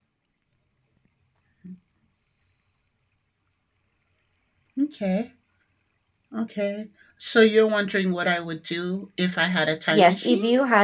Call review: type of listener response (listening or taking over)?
taking over